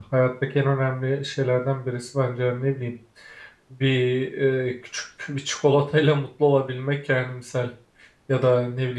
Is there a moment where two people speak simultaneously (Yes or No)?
No